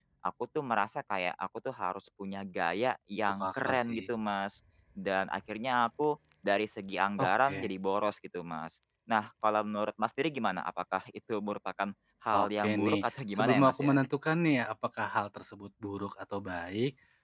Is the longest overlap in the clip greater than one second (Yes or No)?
Yes